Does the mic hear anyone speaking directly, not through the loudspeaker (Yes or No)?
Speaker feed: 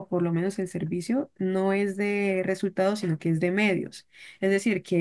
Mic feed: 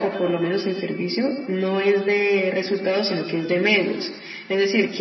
No